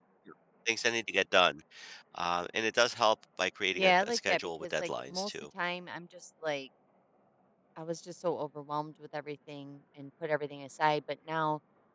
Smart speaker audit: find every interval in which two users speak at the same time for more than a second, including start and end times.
3.7-5.3

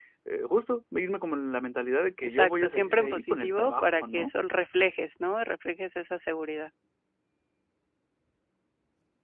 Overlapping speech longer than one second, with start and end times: 2.2-4.3

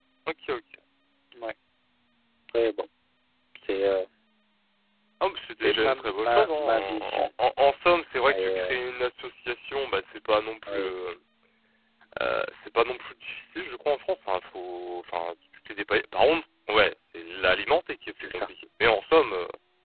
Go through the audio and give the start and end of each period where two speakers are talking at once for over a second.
5.5-7.3

